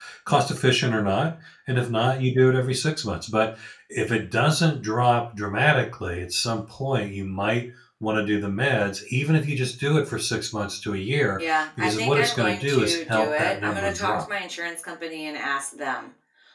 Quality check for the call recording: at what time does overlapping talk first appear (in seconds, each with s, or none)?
11.4 s